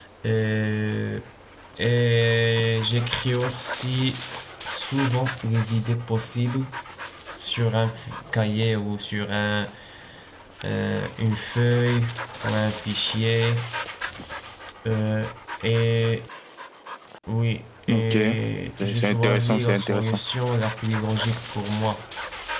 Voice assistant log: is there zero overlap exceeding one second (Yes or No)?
No